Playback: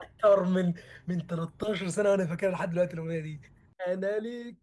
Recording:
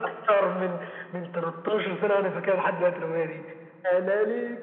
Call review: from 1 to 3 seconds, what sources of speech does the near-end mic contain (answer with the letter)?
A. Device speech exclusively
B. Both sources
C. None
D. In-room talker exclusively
A